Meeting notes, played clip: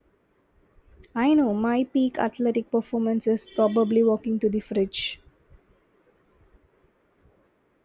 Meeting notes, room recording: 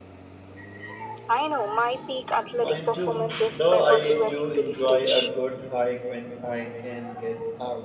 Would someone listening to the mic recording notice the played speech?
Yes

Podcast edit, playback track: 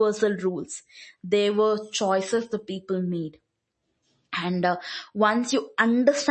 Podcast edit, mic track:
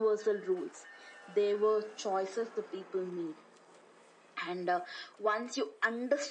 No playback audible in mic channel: No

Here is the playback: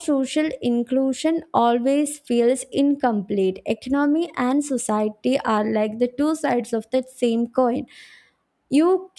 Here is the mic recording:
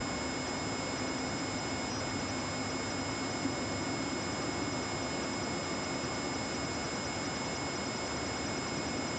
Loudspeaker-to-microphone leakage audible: No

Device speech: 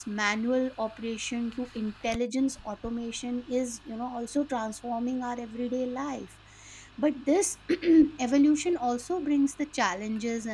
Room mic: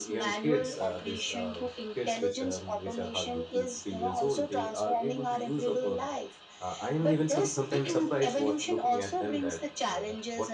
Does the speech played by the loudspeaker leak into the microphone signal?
Yes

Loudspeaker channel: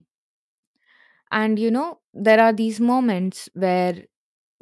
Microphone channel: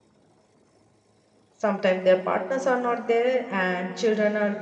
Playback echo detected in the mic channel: No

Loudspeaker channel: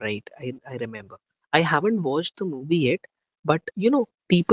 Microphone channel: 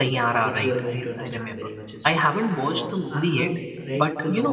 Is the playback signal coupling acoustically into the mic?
Yes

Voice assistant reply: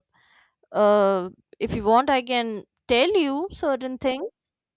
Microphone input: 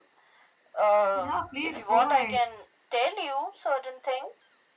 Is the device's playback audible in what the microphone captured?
Yes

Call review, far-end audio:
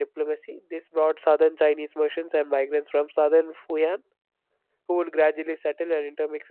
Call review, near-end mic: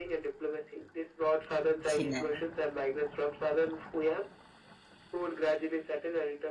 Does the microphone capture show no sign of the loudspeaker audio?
No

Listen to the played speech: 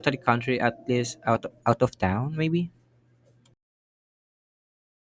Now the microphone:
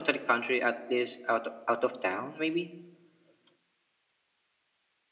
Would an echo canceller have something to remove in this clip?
Yes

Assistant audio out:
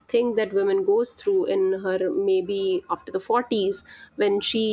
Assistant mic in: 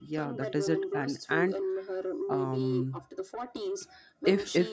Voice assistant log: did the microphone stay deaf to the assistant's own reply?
No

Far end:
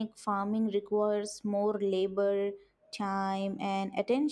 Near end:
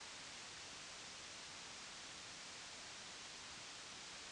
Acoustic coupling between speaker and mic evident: No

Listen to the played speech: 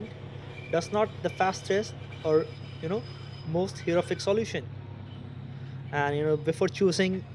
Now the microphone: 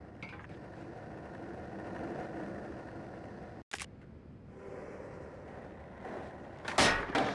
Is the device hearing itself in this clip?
No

